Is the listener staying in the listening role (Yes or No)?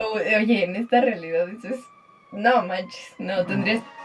Yes